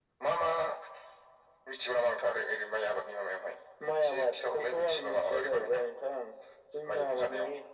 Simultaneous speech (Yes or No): Yes